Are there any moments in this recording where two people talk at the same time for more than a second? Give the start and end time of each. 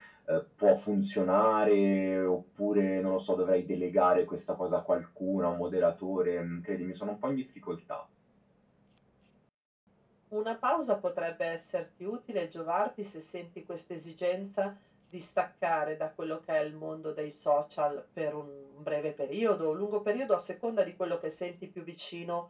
none

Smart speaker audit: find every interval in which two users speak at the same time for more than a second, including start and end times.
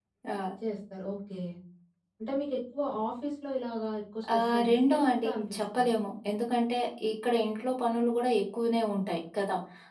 4.3-5.8

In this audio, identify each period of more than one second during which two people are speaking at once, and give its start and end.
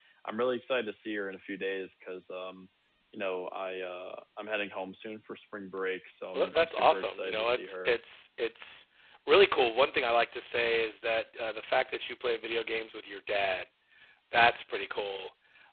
6.3-8.0

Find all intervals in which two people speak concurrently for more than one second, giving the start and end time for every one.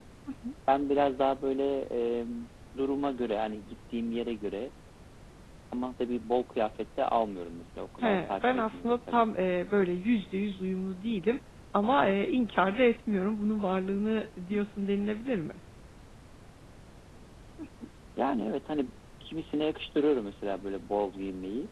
8.0-9.2

